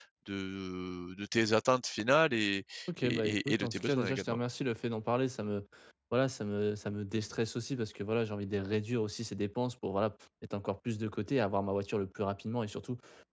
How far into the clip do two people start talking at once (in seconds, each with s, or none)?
3.0 s